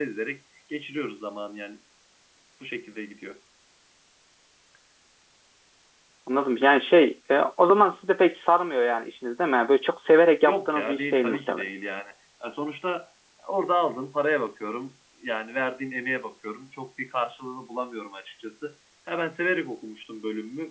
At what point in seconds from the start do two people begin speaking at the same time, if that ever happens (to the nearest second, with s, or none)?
10 s